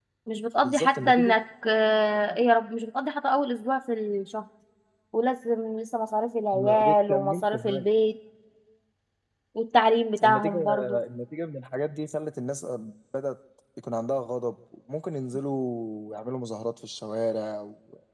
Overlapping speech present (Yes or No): Yes